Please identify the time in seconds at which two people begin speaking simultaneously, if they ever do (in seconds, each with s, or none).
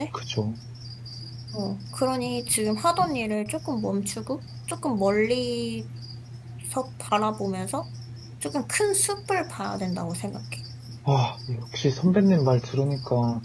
none